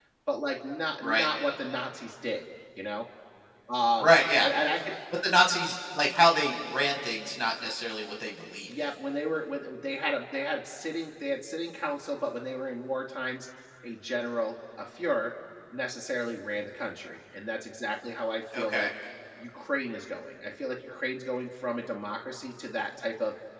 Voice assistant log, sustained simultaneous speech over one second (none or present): none